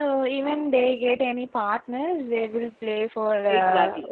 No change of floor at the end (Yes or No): No